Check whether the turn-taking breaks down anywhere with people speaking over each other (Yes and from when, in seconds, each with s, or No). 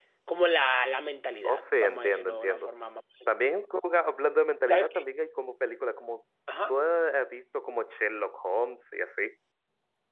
Yes, from 1.4 s